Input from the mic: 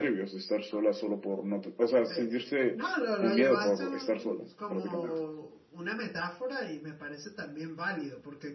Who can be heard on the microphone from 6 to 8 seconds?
user only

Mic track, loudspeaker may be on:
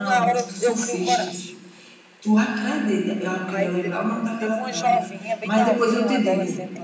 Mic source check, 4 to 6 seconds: both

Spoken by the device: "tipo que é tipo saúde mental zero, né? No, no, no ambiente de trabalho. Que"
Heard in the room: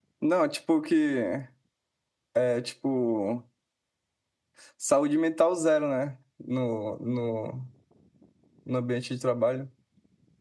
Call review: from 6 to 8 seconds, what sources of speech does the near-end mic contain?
echo only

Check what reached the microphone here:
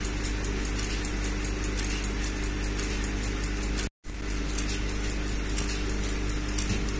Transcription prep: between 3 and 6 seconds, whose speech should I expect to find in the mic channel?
neither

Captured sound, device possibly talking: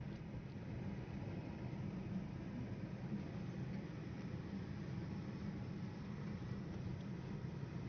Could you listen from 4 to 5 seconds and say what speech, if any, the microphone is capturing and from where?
neither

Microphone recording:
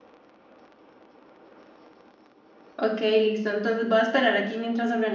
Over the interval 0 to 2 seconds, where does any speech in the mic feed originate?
neither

